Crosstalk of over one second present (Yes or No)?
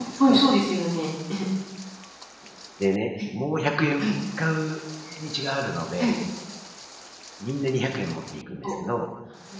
No